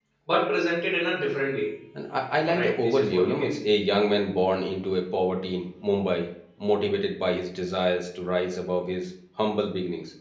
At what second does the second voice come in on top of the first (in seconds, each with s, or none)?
2.4 s